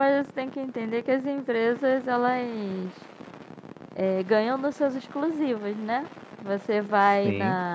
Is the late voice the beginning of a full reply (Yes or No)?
No